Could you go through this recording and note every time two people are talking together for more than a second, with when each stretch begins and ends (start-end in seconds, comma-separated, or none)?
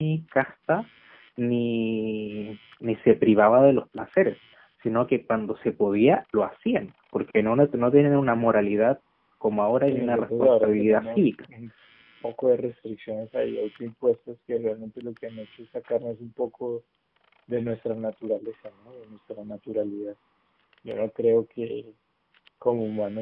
9.9-11.2